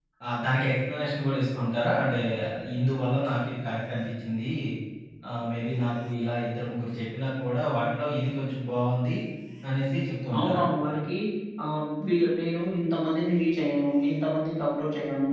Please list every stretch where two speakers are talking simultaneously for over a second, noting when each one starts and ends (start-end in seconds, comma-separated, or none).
none